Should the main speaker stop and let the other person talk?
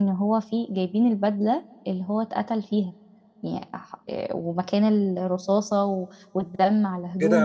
Yes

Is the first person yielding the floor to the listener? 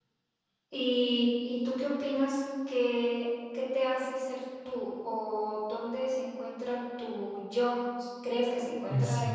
No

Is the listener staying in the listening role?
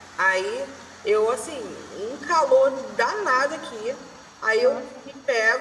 Yes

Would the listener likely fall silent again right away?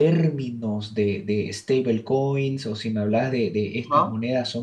Yes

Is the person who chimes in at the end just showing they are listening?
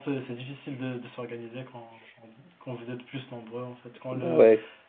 Yes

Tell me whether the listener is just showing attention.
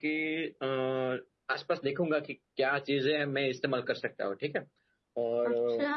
Yes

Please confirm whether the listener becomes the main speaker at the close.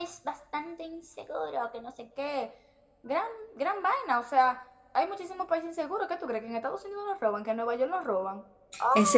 Yes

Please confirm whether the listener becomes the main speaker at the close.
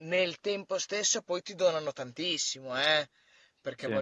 No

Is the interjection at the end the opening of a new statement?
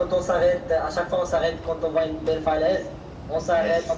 No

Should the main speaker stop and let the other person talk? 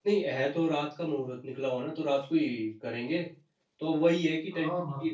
No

